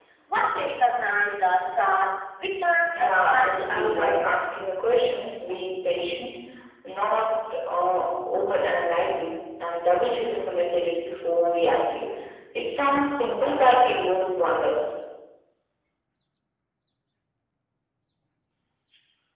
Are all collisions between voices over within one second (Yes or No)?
No